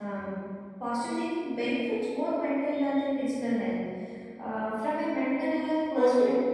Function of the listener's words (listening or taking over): taking over